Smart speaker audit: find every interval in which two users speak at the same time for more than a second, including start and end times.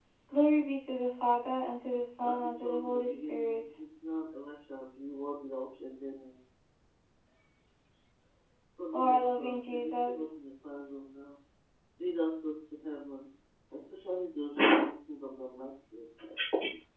2.2-3.6, 8.9-10.3

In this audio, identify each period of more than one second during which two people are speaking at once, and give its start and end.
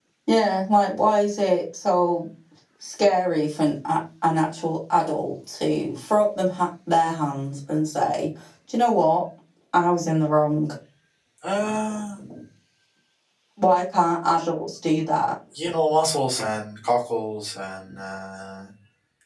none

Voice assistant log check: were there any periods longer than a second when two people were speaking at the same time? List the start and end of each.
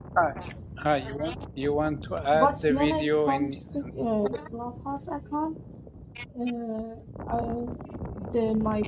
2.3-3.6

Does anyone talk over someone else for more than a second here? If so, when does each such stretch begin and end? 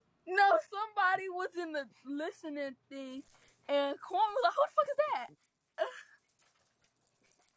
none

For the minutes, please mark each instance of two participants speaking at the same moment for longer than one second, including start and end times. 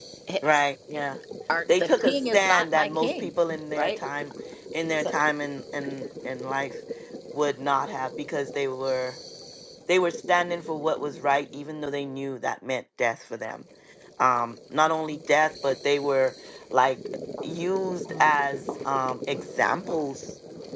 1.8-3.3

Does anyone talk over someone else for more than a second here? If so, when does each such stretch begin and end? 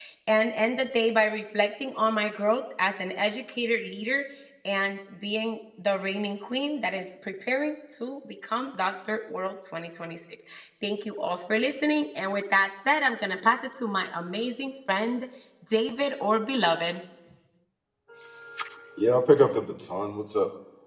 none

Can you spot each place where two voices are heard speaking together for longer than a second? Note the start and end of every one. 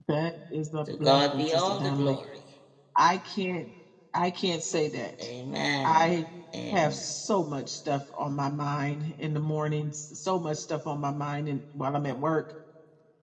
0.9-2.2

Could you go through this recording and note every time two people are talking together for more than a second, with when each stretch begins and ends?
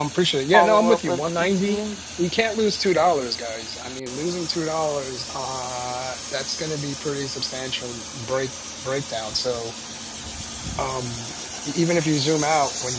0.5-1.8

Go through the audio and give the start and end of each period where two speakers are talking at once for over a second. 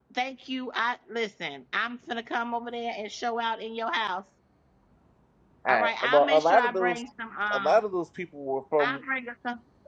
5.7-7.0

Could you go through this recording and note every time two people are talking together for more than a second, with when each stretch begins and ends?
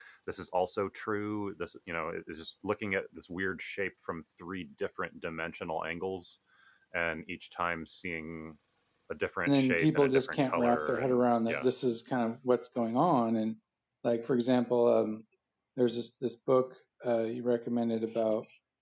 9.5-11.7

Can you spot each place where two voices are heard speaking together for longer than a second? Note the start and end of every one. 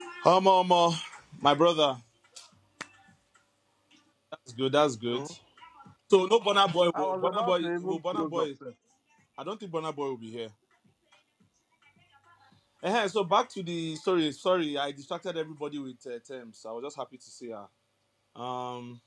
6.9-8.5

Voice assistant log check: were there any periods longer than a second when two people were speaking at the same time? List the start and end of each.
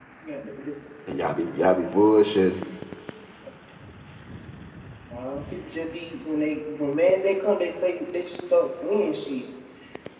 none

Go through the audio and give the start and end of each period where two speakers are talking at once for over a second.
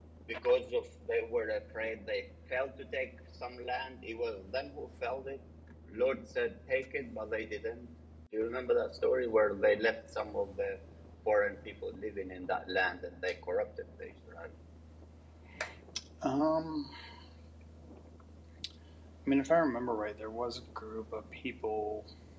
none

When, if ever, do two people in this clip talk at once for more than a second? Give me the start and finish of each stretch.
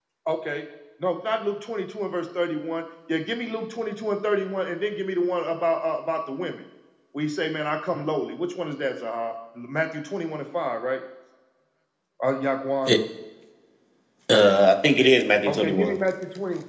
none

